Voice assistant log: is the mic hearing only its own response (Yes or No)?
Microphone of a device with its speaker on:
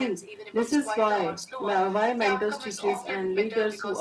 No